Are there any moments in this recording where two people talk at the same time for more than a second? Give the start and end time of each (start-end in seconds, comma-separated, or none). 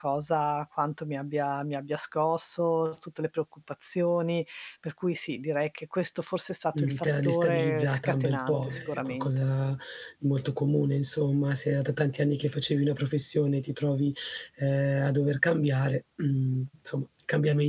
6.8-9.5